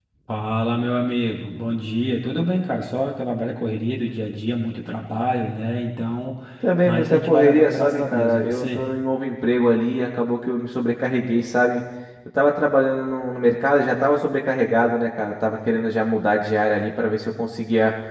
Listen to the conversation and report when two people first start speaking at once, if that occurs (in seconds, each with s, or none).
6.8 s